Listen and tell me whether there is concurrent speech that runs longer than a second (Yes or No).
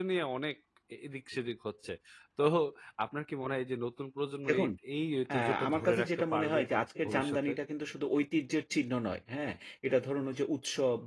Yes